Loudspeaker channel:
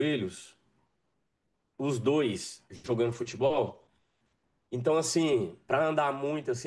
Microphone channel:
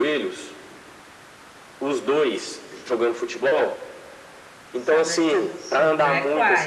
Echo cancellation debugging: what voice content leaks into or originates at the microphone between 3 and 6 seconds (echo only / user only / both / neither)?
both